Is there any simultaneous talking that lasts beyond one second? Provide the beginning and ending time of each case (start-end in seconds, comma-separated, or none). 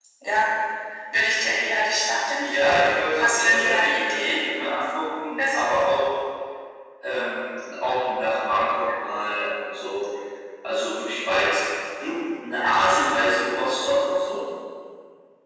2.4-4.4